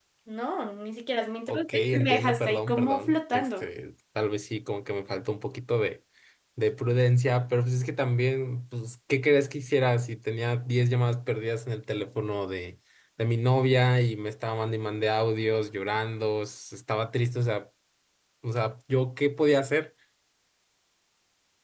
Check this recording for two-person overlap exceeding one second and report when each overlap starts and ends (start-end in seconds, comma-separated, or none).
1.5-3.7